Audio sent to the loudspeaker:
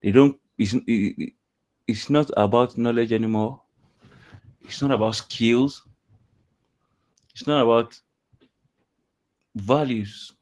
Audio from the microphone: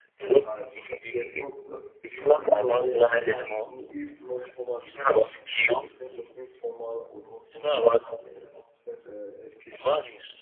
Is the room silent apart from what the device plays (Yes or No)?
No